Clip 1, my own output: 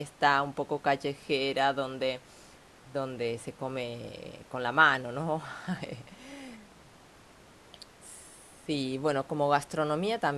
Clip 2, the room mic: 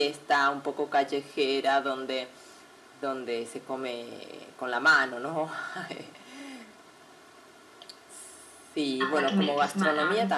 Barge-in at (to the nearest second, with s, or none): 9 s